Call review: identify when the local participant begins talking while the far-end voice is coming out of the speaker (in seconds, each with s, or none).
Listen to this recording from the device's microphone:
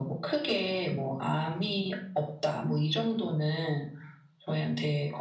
none